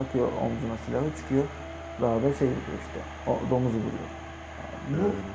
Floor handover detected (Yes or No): No